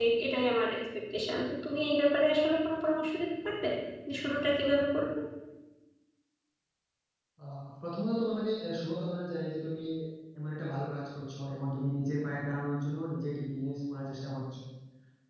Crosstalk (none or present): none